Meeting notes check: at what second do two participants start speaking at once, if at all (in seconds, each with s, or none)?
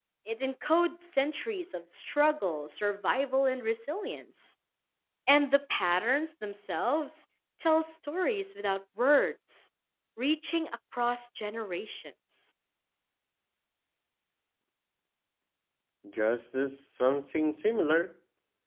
none